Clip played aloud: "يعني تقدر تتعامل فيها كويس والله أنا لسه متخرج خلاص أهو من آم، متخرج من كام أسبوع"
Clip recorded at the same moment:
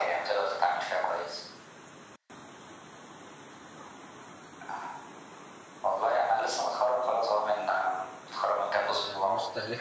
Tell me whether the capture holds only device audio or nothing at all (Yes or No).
No